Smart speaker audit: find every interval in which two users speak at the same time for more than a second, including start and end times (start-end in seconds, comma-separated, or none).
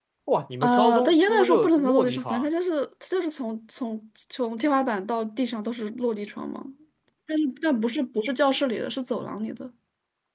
0.6-2.5